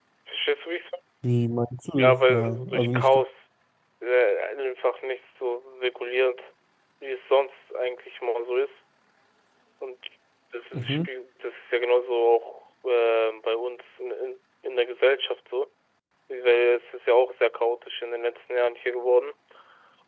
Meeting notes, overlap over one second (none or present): present